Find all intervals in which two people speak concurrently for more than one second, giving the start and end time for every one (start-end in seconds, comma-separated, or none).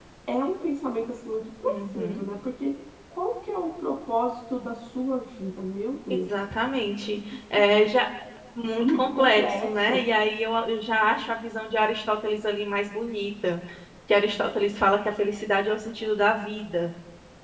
8.8-10.0